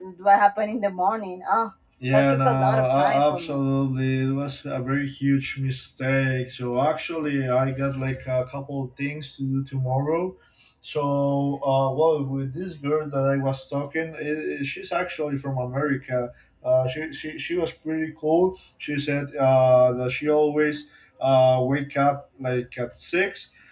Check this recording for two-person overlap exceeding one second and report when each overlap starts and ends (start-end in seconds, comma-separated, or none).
2.1-3.6